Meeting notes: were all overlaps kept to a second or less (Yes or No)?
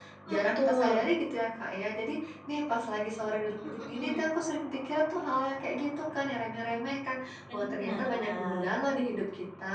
No